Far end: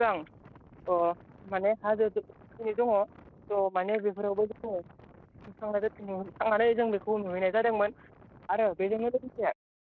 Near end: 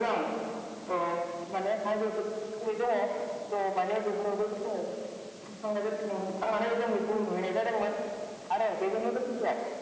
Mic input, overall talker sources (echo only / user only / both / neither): echo only